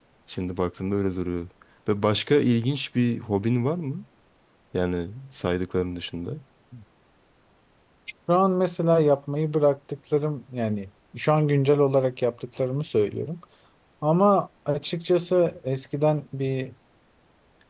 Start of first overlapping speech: none

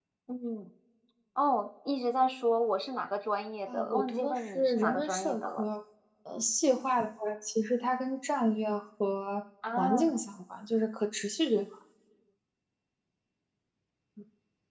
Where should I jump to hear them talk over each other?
4 s

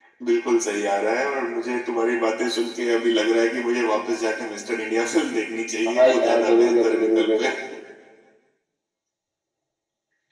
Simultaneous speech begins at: 6 s

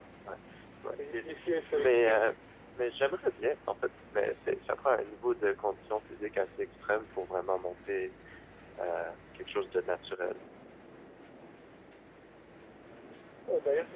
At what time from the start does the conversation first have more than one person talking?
1 s

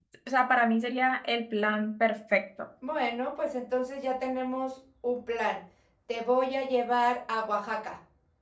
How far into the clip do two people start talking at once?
none

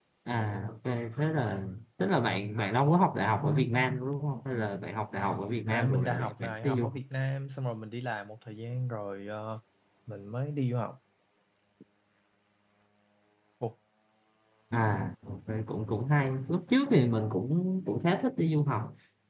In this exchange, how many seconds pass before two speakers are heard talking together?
6 s

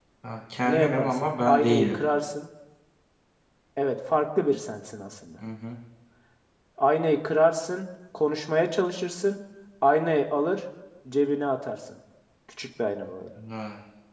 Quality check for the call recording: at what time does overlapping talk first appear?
1 s

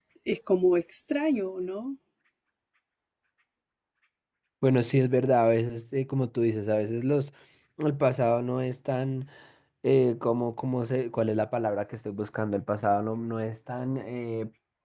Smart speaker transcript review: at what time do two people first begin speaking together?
none

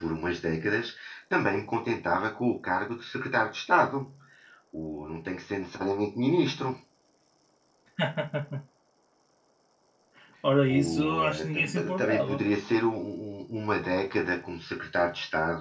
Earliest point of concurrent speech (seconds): 11 s

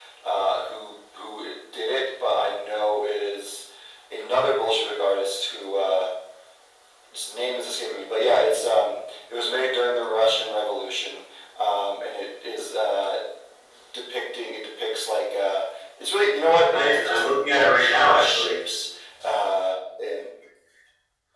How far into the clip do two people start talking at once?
17 s

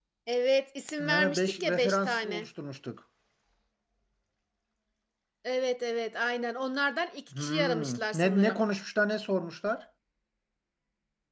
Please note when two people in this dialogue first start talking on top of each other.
1 s

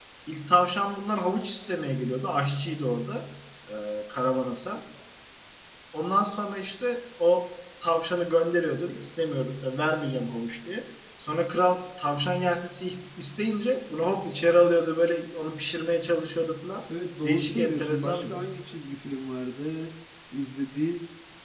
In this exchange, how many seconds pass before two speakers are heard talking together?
17 s

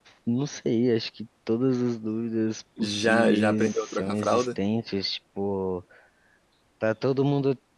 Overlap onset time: 3 s

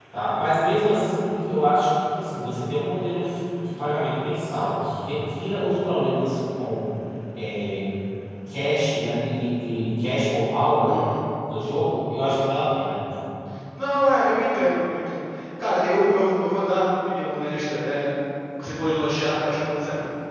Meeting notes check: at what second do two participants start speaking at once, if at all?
none

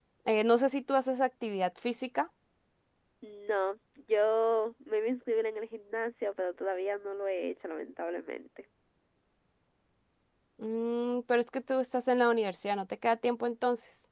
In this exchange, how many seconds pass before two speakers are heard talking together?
none

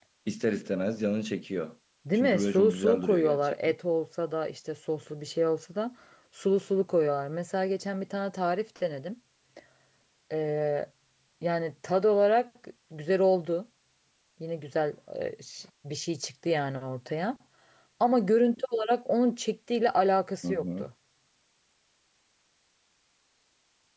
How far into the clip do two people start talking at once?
2 s

